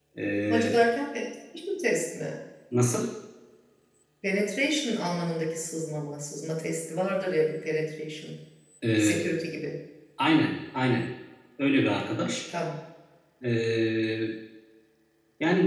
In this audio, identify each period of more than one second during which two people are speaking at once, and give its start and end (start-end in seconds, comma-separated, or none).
none